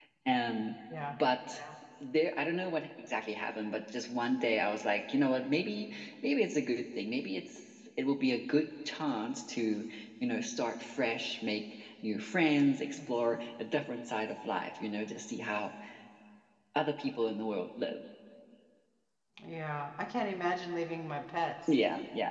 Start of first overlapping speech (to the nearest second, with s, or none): none